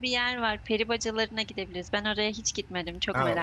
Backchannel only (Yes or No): No